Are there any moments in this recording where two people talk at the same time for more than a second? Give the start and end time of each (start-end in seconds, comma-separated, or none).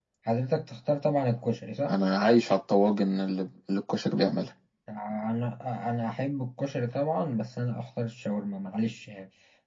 none